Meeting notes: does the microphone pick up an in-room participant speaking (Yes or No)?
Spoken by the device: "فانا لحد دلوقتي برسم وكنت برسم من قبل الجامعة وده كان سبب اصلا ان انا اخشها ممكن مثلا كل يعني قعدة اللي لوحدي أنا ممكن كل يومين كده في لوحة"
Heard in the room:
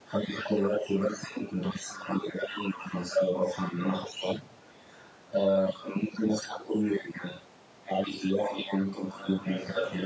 Yes